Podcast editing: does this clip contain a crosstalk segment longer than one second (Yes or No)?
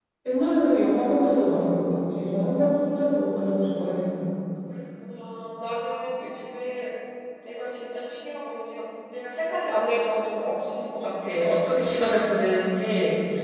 No